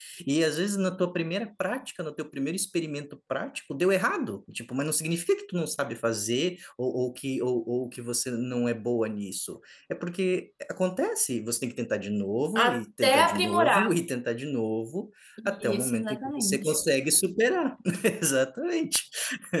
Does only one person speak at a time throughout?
No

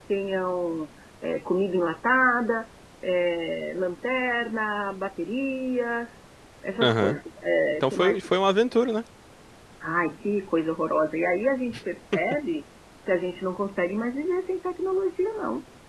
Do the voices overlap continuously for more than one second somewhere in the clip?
No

